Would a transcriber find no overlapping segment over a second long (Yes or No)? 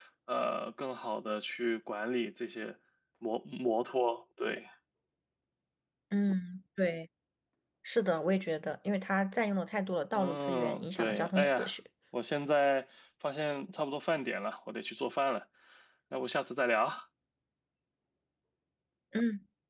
No